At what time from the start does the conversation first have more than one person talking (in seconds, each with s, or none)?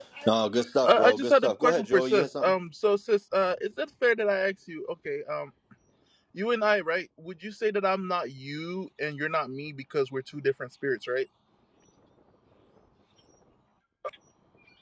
0.9 s